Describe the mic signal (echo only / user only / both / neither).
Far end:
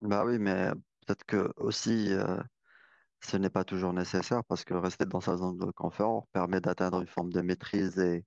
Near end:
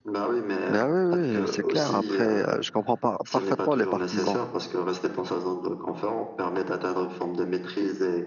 both